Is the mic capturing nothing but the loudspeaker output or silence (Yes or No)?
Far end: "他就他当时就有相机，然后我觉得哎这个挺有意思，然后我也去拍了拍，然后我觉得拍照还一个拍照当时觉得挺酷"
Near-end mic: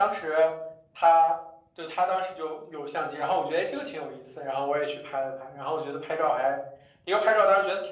Yes